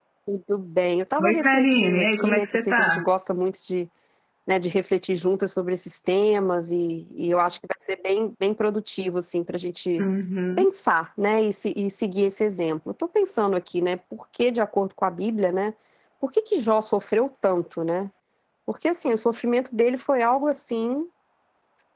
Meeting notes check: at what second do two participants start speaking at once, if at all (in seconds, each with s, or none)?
1.2 s